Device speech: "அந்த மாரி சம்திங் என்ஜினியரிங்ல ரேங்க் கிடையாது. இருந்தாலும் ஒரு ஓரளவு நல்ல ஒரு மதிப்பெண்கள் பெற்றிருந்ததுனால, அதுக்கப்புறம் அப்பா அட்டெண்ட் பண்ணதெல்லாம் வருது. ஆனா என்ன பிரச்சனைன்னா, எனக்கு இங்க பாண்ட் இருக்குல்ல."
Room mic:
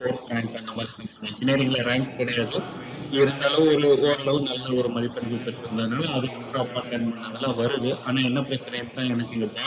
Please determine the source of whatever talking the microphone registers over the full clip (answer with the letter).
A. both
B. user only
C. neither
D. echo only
A